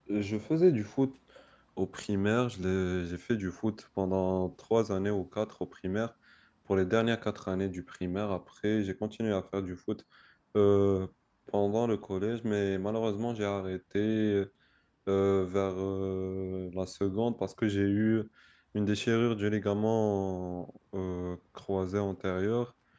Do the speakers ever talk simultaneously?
No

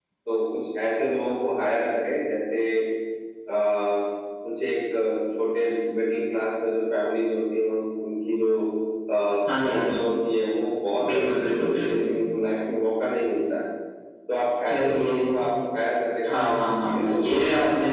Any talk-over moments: Yes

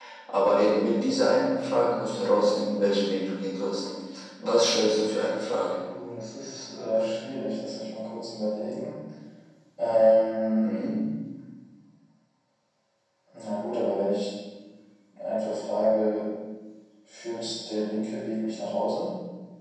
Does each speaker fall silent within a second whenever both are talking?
Yes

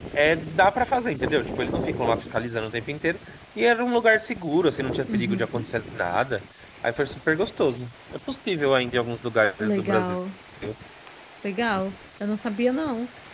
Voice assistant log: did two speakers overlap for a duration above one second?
No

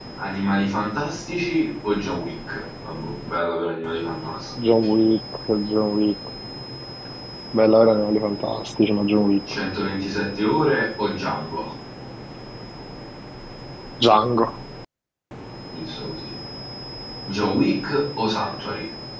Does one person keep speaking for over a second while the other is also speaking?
No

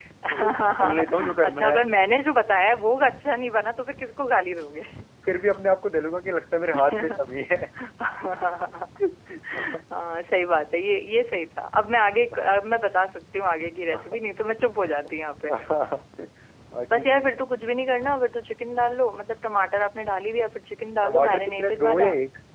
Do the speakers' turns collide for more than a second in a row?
Yes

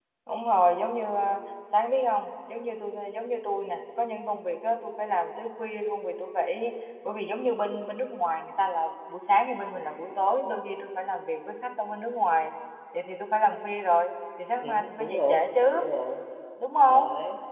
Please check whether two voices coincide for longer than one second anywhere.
Yes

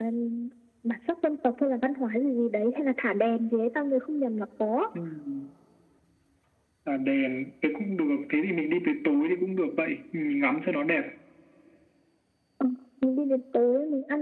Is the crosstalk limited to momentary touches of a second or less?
Yes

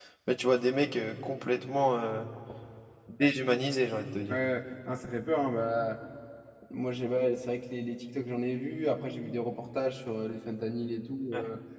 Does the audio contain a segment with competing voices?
No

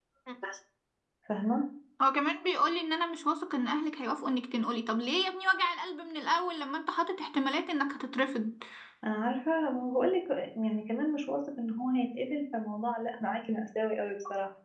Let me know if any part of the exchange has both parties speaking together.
No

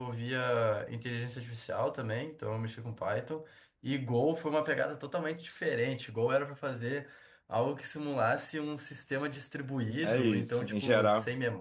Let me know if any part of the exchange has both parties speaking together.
Yes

